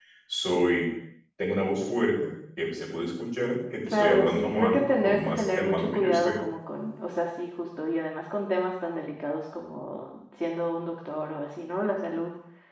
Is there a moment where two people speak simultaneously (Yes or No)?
Yes